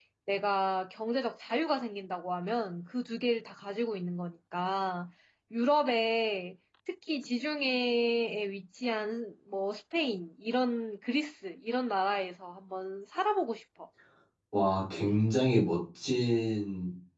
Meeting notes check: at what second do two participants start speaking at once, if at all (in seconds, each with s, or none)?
none